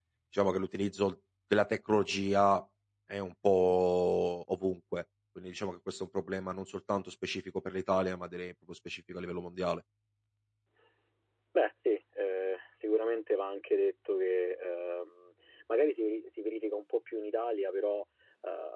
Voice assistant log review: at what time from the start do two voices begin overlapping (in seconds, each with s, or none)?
none